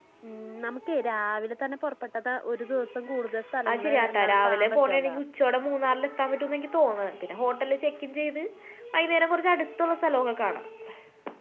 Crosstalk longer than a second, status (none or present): present